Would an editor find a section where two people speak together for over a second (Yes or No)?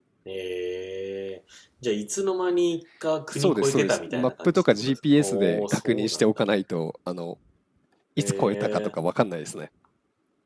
Yes